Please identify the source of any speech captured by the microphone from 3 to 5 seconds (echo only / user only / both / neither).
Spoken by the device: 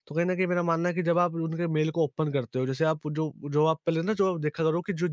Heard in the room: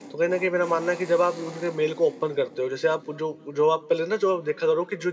echo only